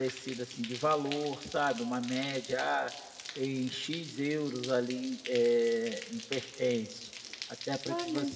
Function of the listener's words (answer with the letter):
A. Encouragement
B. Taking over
A